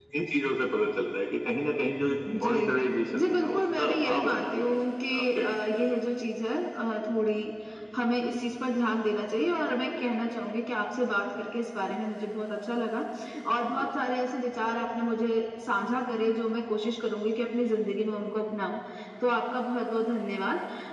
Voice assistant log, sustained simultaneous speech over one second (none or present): present